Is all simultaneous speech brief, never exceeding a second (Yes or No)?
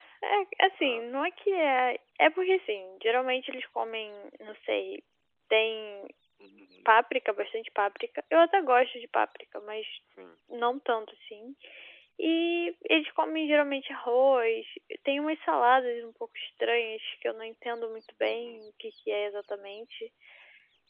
Yes